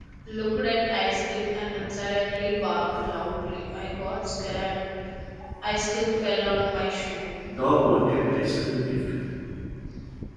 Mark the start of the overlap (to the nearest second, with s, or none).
none